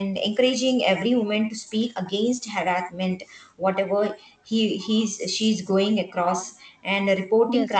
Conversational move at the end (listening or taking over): listening